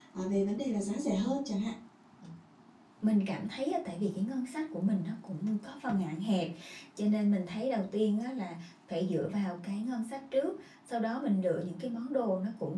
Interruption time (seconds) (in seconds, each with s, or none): none